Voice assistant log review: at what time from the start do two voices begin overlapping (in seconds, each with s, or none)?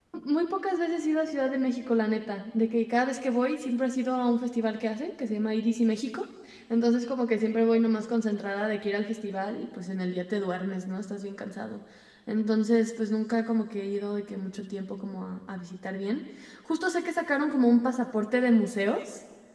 none